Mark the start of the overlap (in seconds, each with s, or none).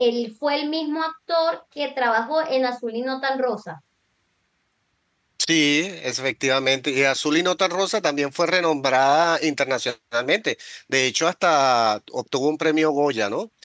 none